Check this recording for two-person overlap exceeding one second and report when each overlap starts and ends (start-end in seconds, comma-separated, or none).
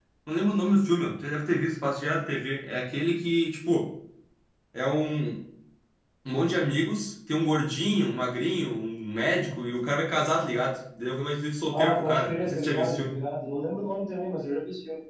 11.7-13.1